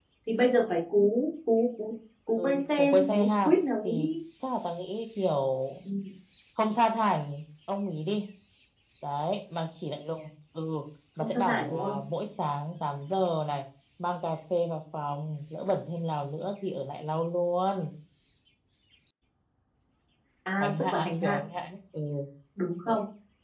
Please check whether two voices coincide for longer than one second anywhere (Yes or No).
Yes